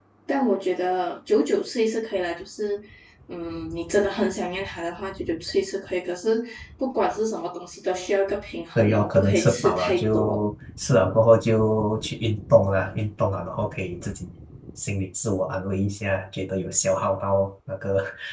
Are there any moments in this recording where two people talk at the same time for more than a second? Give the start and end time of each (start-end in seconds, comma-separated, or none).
8.8-10.4